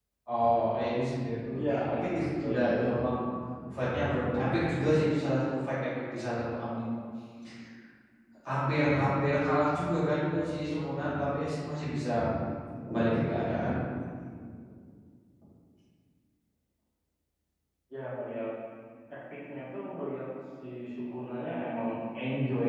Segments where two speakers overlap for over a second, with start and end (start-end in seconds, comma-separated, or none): 1.6-2.8